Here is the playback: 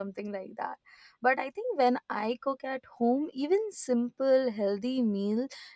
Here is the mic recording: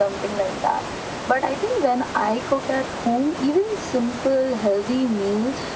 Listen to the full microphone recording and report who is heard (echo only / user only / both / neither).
echo only